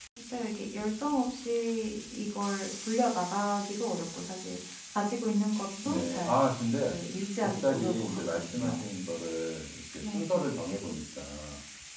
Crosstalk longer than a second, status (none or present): present